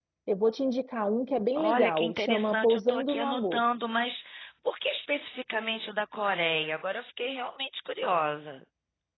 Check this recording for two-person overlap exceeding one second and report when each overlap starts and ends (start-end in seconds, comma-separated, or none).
1.6-3.6